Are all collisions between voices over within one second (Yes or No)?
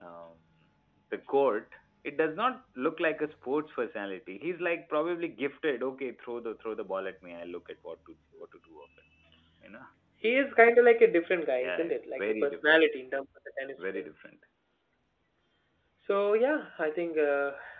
No